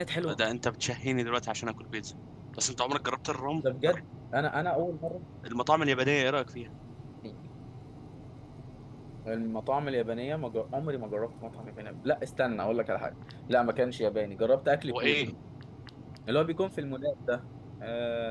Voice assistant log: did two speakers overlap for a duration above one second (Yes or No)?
No